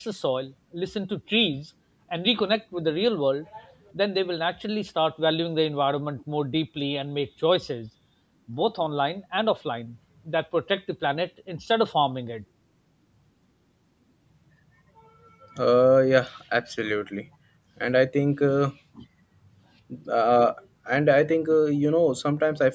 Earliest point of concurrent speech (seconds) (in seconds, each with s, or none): none